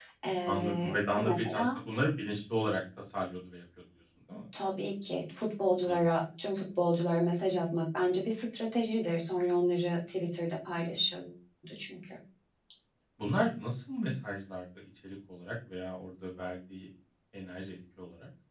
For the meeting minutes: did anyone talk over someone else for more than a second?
Yes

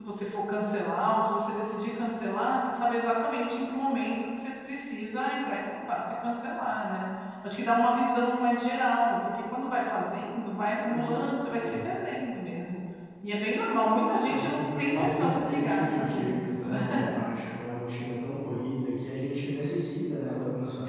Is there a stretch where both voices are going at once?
Yes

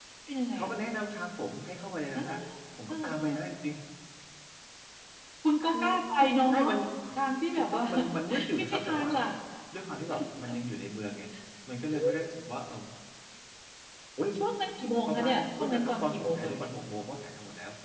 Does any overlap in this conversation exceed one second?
Yes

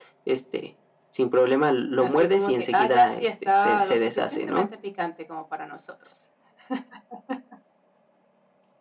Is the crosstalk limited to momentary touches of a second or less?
No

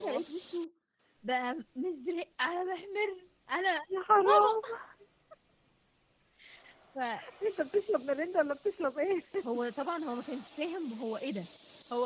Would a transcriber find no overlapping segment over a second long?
Yes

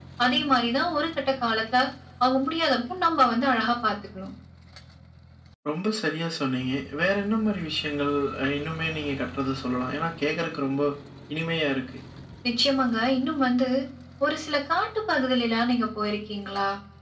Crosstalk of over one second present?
No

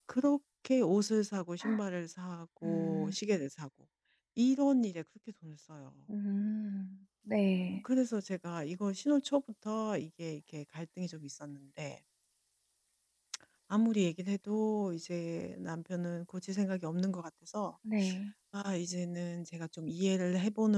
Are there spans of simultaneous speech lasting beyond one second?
No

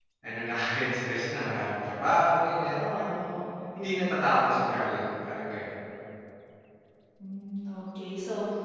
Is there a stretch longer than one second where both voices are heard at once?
No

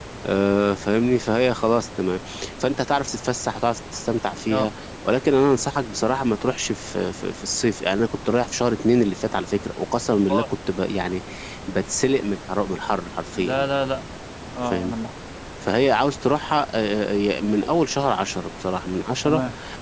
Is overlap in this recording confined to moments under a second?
Yes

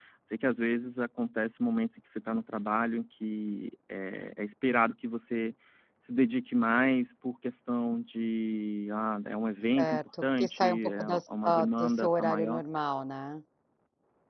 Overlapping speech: Yes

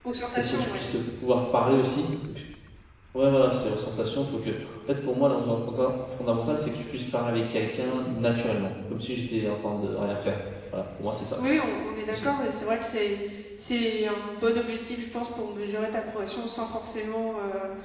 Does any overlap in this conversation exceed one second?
No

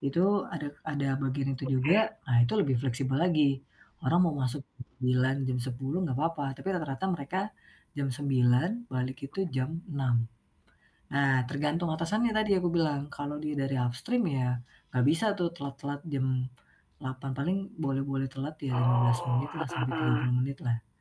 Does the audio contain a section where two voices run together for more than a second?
Yes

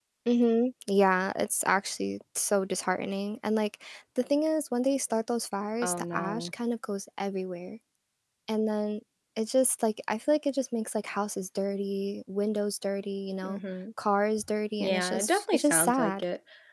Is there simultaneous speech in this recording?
Yes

